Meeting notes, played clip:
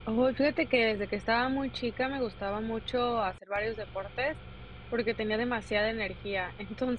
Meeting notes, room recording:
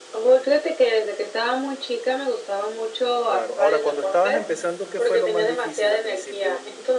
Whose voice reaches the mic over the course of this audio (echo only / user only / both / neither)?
both